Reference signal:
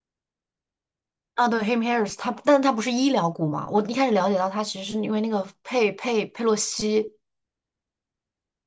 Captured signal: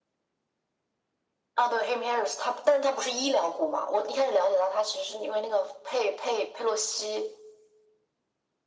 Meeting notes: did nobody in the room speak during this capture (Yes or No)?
Yes